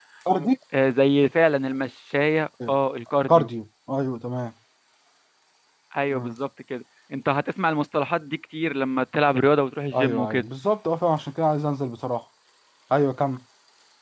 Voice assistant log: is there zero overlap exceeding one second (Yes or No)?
Yes